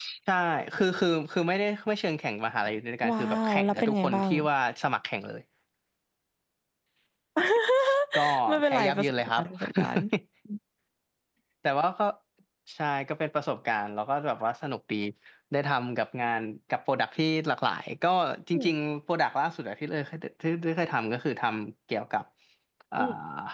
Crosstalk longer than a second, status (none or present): present